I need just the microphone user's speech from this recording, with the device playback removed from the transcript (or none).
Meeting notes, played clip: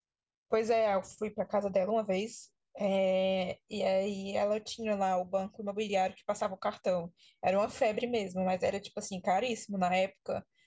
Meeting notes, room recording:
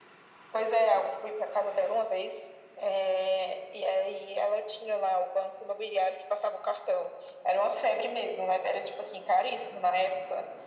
none